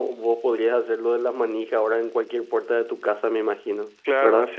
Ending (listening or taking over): taking over